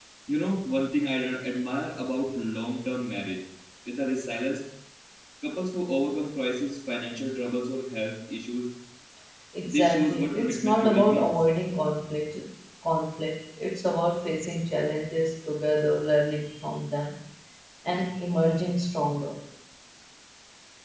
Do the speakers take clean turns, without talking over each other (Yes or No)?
No